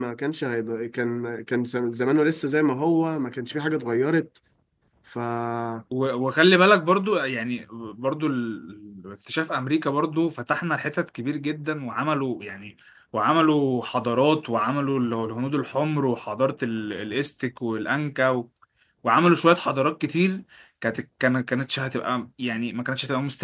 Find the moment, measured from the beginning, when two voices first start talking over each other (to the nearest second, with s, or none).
none